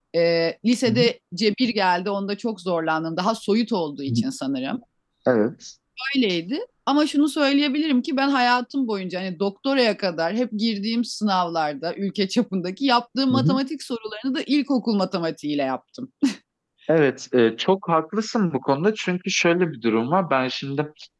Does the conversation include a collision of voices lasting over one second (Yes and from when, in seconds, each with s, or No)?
No